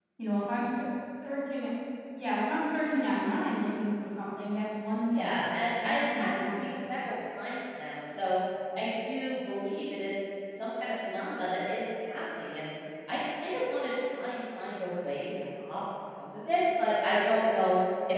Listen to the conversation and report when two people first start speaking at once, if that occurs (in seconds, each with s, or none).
5.1 s